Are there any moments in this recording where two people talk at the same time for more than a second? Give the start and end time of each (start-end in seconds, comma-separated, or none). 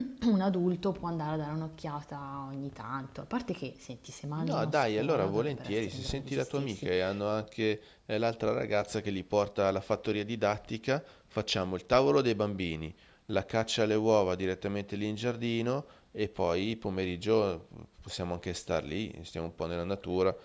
4.4-6.9